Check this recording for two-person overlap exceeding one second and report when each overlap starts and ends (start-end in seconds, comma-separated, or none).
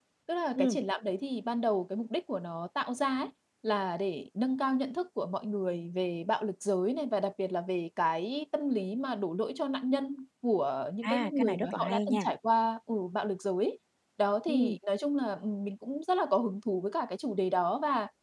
11.0-12.2